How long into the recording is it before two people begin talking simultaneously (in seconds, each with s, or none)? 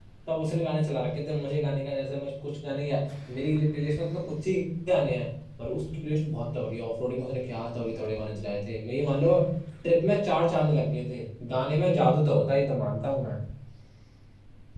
none